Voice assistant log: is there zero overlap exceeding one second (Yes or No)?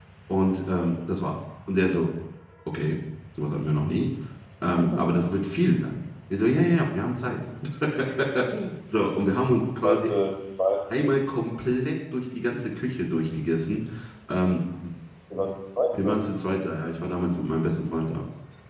Yes